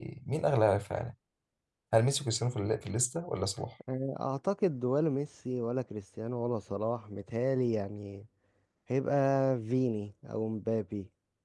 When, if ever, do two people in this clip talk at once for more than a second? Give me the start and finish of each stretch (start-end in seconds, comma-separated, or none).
none